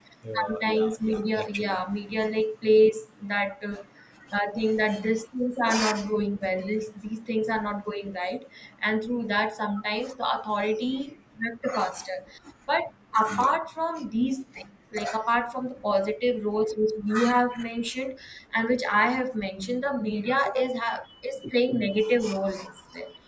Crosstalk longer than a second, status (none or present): present